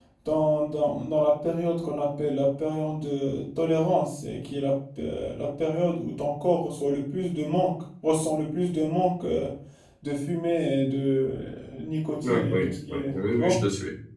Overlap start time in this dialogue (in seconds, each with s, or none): 12.2 s